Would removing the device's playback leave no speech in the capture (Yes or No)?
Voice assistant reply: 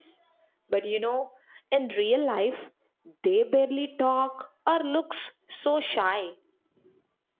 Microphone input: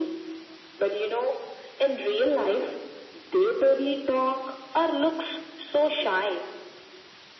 Yes